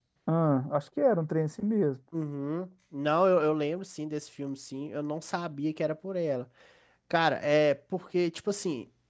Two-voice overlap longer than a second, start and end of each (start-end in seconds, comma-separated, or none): none